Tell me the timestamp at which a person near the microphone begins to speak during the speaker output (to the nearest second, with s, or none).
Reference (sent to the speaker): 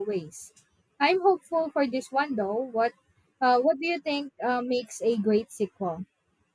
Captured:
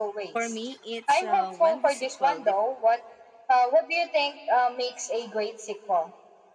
0 s